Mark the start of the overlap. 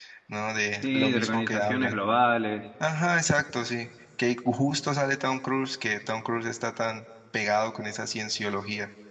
0.7 s

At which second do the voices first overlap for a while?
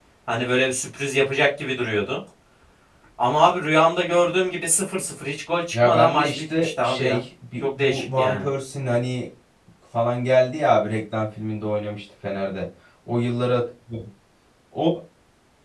5.7 s

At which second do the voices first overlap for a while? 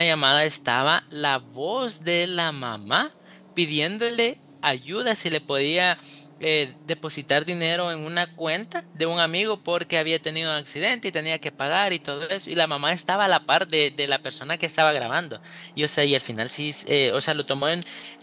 none

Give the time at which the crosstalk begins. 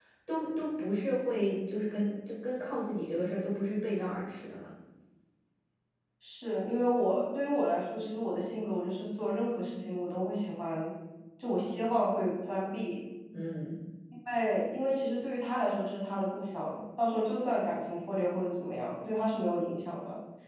none

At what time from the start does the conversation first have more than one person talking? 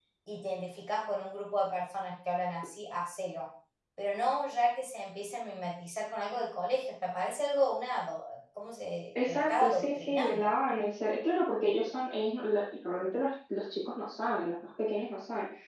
9.2 s

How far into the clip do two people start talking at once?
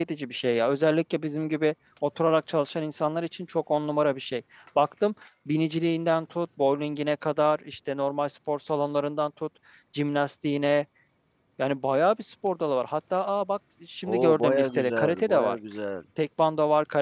14.0 s

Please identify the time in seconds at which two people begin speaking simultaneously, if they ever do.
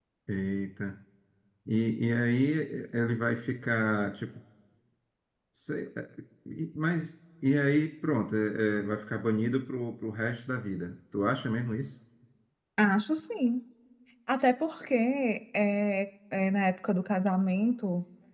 none

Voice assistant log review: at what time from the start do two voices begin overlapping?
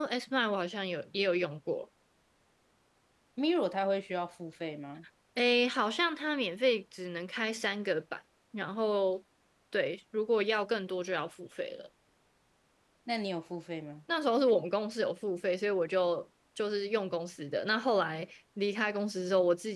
none

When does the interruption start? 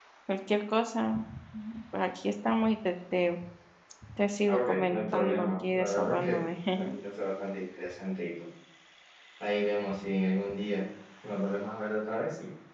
4.5 s

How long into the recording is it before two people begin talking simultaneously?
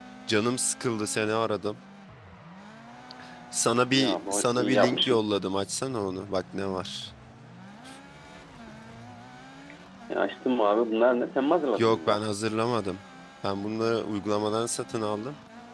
3.9 s

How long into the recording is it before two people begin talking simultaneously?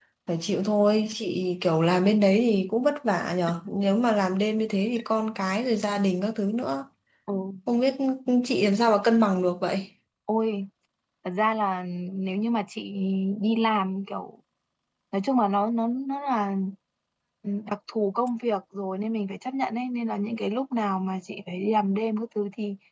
none

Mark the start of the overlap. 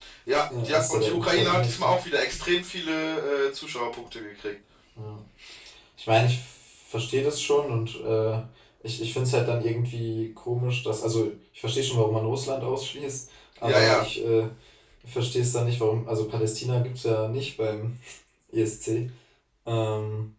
0.6 s

